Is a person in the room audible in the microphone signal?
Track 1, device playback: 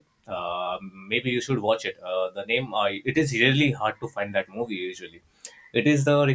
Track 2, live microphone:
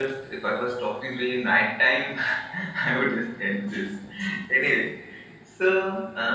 Yes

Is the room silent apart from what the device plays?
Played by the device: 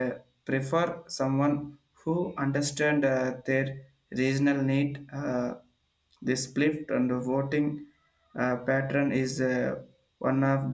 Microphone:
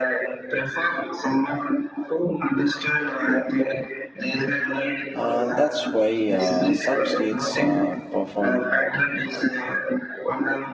No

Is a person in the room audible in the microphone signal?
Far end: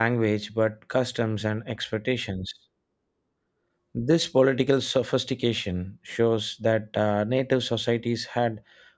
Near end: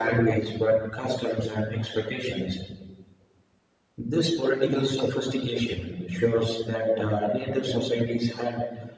No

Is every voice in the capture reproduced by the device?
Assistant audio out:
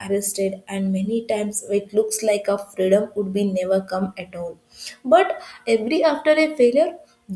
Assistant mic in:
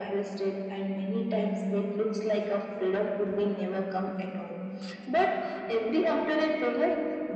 Yes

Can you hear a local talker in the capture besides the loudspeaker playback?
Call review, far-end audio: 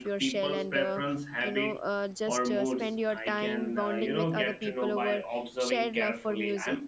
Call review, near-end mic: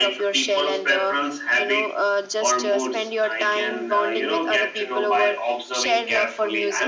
No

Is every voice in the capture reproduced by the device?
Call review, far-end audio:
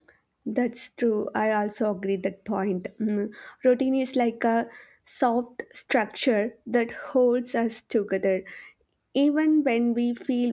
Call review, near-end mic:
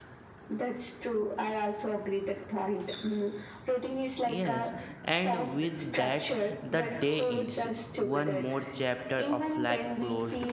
No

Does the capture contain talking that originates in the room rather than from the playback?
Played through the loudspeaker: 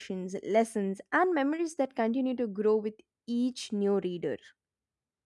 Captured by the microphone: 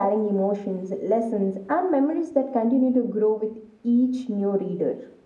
No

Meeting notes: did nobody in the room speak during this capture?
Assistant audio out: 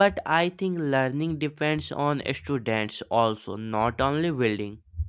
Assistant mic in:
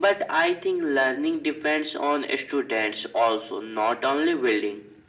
Yes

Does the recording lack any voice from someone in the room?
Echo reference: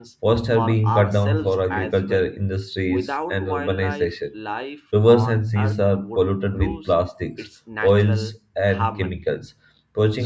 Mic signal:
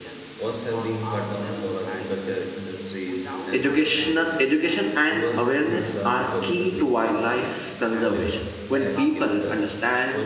No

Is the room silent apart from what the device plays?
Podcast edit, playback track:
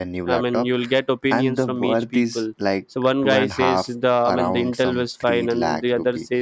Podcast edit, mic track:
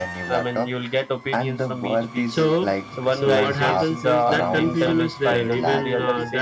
No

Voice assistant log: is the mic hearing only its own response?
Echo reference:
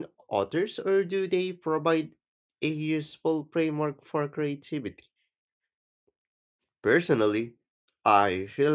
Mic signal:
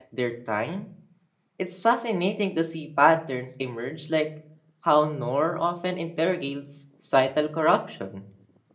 No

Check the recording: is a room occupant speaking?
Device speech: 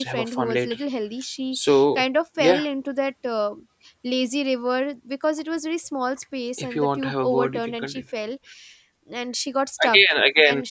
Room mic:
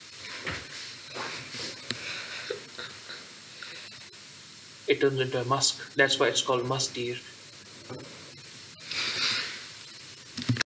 Yes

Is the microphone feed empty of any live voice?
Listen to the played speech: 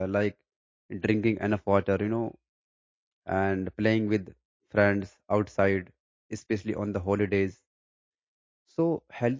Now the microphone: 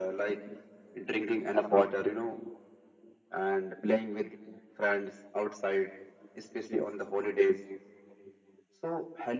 Yes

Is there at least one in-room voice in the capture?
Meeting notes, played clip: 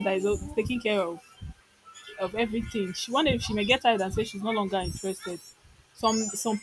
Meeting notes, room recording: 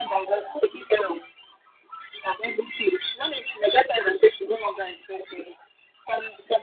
No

